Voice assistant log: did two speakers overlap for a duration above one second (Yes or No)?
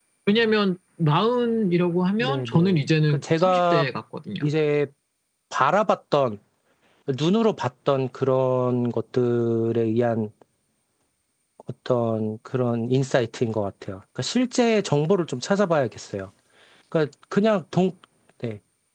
Yes